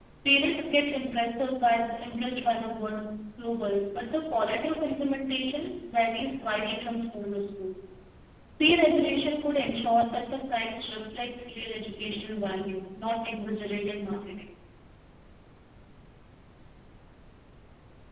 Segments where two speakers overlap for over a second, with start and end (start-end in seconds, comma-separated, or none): none